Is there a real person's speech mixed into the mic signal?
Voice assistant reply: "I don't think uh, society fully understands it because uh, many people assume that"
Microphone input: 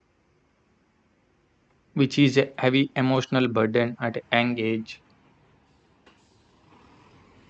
Yes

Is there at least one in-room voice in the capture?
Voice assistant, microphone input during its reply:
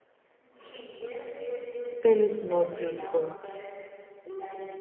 Yes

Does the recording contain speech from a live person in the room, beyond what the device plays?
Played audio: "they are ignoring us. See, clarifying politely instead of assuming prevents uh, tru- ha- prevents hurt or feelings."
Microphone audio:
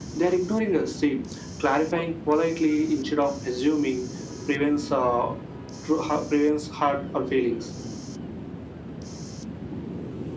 No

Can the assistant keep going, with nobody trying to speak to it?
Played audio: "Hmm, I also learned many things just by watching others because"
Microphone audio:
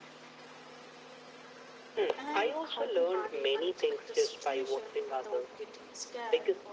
No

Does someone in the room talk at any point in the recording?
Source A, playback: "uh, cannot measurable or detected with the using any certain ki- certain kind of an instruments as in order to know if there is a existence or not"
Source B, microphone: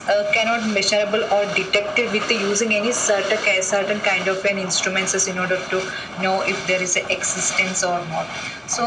No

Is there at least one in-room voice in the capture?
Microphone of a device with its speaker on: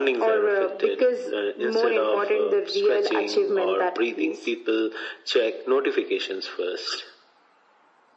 No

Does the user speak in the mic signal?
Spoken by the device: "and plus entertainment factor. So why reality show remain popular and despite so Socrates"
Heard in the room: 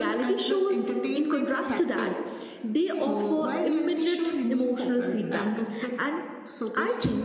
Yes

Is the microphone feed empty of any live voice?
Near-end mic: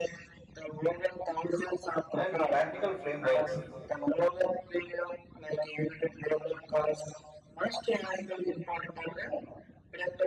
No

